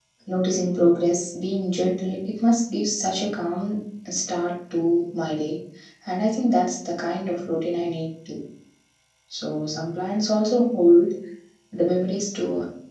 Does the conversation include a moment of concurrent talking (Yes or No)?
No